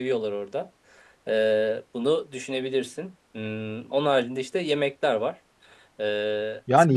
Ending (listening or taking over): taking over